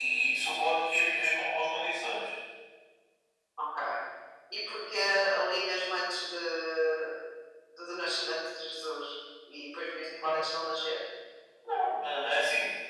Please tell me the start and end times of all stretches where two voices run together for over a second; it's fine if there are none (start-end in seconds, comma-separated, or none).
none